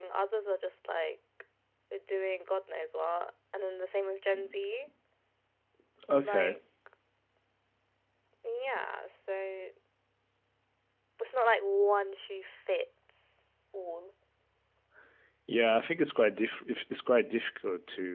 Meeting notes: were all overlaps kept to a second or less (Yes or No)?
Yes